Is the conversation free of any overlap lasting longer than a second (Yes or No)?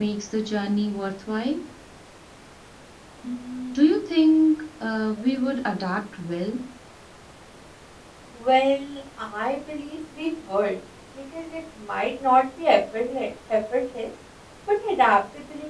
Yes